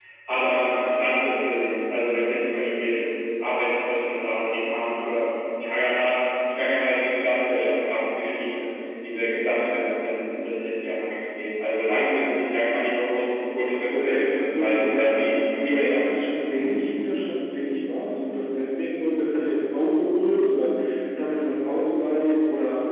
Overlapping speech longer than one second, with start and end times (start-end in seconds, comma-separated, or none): 13.9-16.3